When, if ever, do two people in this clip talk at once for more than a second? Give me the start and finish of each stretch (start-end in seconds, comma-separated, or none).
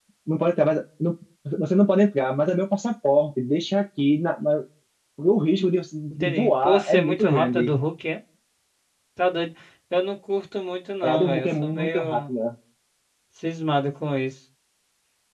6.1-7.8, 11.0-12.3